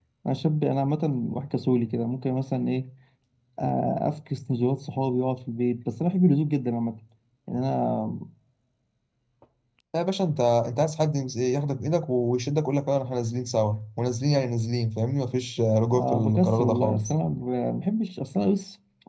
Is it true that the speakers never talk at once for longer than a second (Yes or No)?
No